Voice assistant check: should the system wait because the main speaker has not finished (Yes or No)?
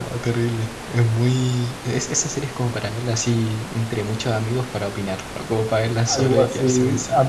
No